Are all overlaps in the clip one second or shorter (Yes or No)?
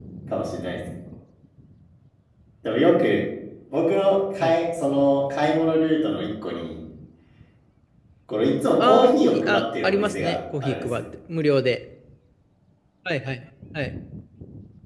No